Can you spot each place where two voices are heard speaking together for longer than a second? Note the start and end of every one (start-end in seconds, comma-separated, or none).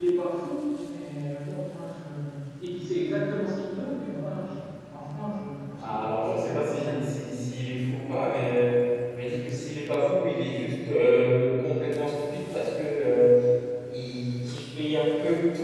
5.8-7.2